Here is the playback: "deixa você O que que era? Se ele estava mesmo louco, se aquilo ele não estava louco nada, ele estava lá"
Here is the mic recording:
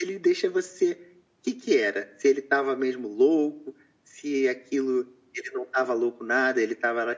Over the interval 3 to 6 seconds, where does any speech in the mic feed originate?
echo only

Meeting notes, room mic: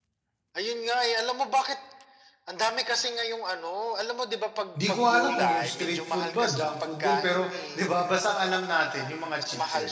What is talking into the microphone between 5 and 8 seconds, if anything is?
both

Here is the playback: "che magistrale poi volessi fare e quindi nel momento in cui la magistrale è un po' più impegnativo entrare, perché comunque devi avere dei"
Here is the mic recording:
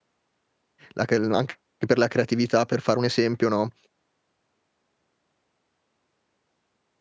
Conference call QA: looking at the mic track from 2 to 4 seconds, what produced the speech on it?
user only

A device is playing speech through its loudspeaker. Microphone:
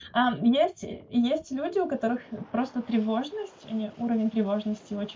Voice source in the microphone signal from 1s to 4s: user only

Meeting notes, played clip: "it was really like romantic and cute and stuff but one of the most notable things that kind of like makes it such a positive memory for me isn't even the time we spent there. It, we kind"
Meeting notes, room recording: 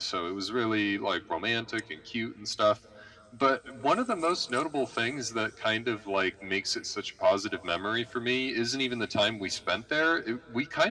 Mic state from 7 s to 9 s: echo only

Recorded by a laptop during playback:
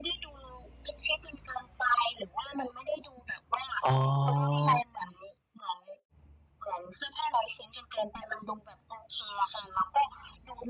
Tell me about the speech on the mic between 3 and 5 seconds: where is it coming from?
both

